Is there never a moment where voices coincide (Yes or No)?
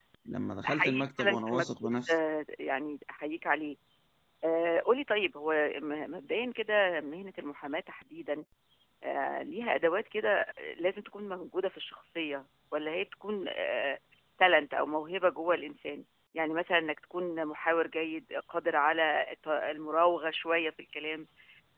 No